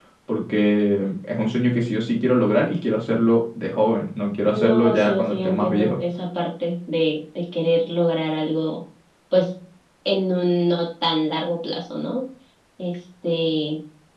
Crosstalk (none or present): present